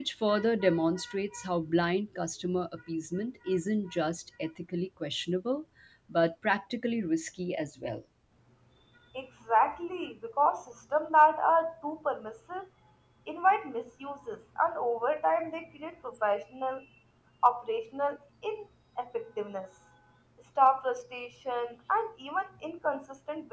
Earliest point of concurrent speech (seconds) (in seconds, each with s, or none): none